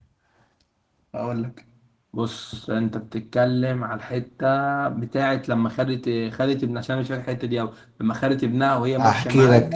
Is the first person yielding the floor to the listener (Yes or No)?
Yes